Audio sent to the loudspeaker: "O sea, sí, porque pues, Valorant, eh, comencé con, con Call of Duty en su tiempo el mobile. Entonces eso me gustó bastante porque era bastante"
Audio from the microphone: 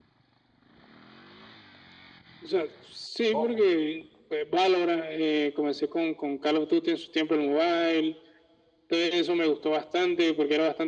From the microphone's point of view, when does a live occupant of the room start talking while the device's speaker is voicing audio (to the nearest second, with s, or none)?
3 s